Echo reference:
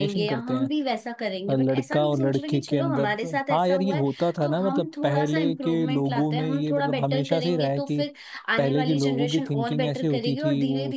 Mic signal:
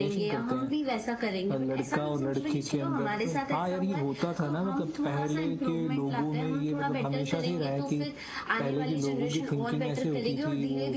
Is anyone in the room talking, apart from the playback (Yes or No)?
No